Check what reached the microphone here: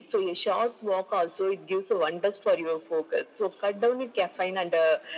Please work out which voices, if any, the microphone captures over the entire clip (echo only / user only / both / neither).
echo only